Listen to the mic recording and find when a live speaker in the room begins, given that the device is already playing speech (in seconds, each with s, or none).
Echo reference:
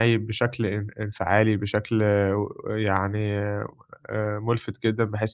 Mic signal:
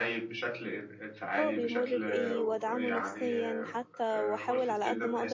1.4 s